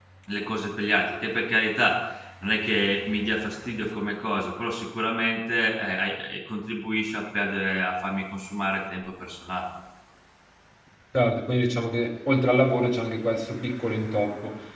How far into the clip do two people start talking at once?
none

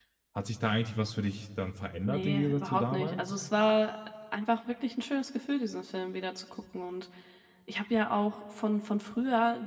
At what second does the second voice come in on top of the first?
2.1 s

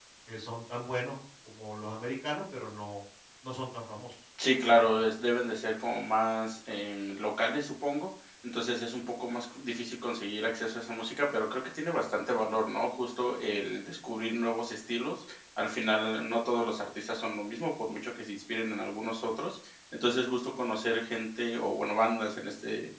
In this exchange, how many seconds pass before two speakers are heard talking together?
none

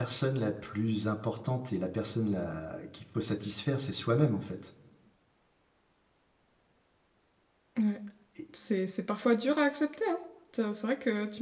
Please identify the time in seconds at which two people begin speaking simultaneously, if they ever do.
none

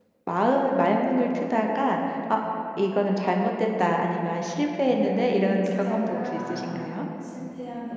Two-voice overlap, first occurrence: 5.0 s

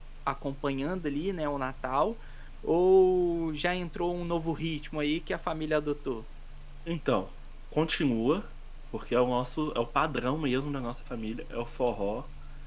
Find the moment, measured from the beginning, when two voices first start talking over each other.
none

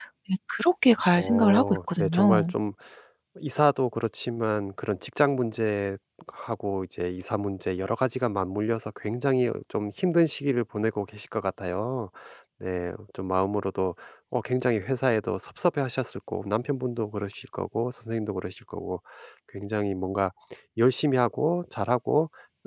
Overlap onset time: 1.2 s

